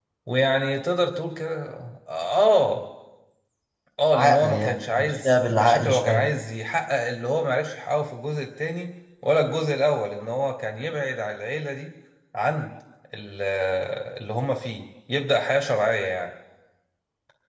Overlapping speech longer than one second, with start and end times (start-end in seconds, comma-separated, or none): 4.1-6.2